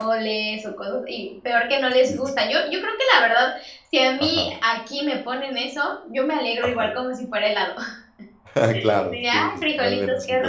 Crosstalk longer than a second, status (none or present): present